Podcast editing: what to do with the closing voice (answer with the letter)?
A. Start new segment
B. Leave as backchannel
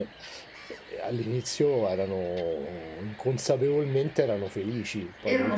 A